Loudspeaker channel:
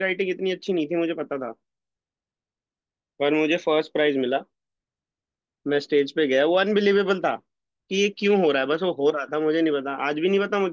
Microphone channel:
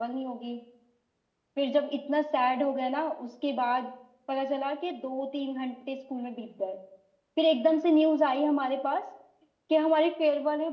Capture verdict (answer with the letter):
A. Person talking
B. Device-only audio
A